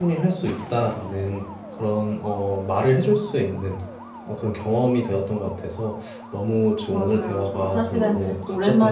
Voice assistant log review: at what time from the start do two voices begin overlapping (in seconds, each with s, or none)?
6.9 s